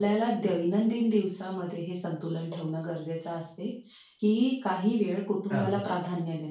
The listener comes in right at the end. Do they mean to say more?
No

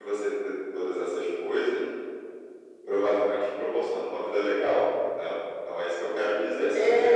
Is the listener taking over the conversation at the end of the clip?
Yes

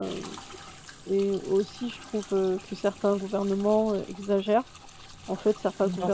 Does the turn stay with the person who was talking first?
Yes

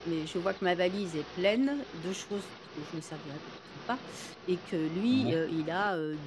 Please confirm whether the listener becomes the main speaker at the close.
No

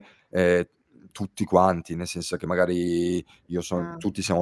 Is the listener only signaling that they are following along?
Yes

